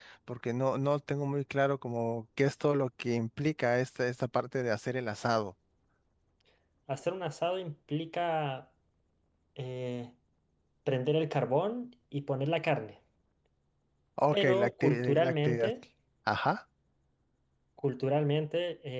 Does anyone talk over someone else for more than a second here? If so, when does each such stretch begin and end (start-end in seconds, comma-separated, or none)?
14.3-15.7